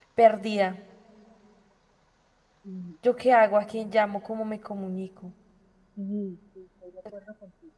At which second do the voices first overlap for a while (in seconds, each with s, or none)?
none